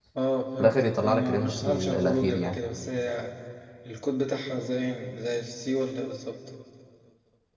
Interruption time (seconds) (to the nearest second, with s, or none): 1 s